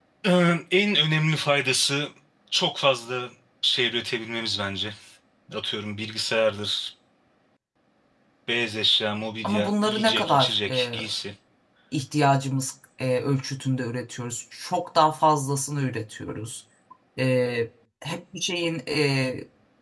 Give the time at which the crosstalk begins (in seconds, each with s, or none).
9.4 s